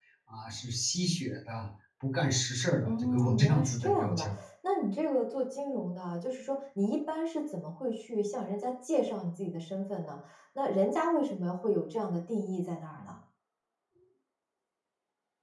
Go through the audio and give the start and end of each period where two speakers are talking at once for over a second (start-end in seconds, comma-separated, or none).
2.9-4.4